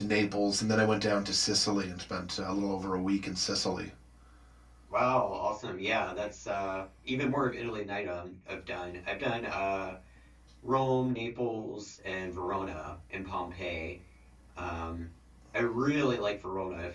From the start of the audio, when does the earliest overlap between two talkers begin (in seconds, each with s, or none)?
none